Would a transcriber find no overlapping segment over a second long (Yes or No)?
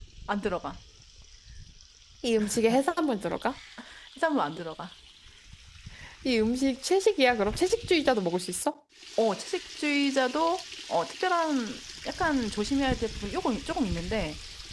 Yes